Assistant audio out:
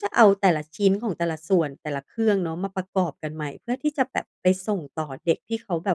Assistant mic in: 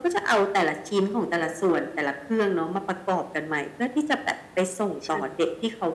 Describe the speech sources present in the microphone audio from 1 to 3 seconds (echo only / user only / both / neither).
echo only